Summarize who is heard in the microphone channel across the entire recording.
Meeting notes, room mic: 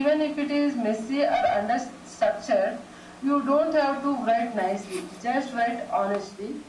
echo only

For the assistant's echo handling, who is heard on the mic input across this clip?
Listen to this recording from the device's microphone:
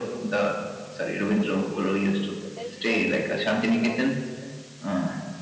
both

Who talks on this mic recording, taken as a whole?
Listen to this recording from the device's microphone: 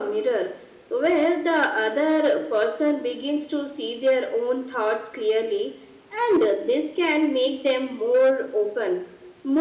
echo only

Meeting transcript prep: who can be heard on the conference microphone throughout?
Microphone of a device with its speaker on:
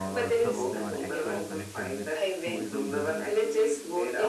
both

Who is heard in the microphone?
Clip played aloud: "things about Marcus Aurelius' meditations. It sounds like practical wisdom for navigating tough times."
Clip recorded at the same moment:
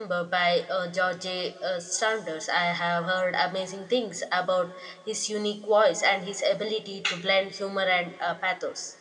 user only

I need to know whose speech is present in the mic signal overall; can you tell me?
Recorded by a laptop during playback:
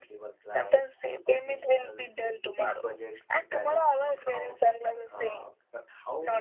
both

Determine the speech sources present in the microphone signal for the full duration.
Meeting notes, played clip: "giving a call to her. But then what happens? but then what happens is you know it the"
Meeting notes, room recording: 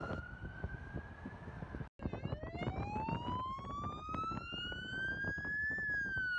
neither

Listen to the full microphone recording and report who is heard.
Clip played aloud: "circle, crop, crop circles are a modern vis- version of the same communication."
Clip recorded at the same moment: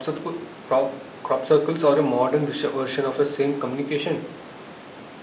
echo only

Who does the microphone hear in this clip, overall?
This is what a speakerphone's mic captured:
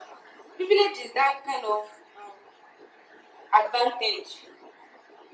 echo only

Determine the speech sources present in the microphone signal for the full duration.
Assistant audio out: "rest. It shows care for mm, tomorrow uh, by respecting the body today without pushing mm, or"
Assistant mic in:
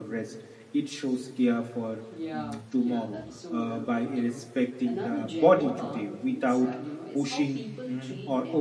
both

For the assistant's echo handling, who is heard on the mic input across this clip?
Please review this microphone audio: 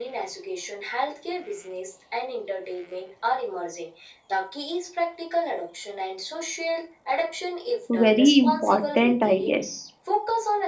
both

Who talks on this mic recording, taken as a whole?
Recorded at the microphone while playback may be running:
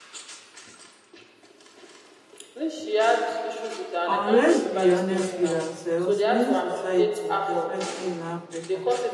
both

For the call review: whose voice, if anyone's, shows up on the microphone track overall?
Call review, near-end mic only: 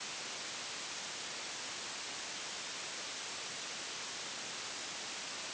neither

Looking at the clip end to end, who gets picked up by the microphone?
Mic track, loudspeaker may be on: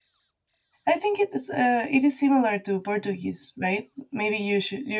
user only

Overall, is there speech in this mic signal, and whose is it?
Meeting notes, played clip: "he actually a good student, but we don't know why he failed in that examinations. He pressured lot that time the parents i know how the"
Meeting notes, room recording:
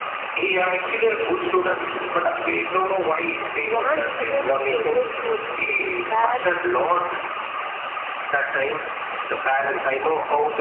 both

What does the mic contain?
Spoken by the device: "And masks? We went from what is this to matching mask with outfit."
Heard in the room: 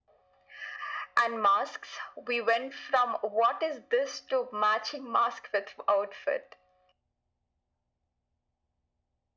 echo only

